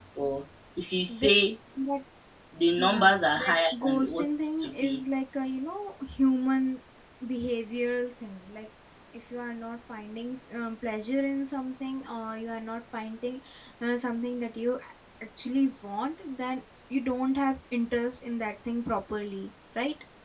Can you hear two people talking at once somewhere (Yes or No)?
Yes